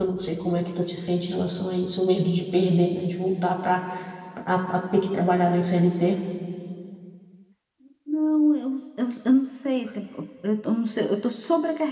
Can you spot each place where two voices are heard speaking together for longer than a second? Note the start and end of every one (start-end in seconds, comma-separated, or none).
none